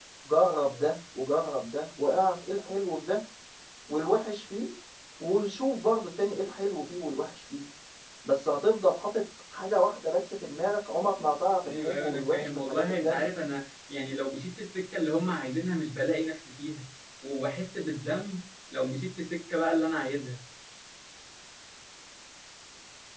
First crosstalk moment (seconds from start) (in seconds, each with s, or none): 11.6 s